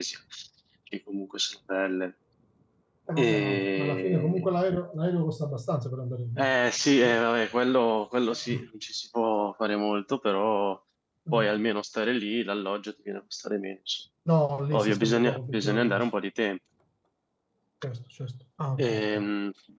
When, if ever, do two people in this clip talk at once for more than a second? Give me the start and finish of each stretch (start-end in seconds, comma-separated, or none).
3.2-4.5, 14.7-16.1